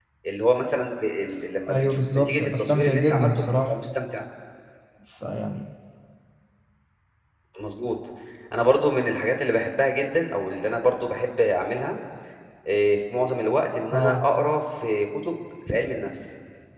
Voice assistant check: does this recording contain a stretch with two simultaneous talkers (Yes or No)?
Yes